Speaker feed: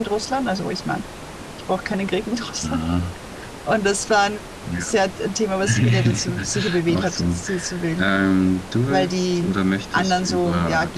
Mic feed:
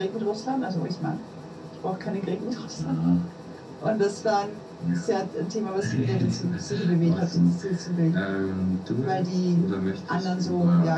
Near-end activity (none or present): none